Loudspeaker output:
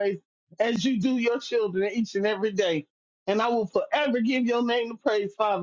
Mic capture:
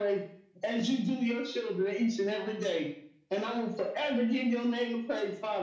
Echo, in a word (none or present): present